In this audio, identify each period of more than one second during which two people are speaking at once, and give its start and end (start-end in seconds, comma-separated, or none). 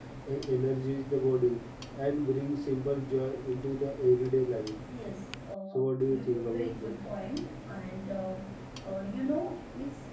5.8-7.0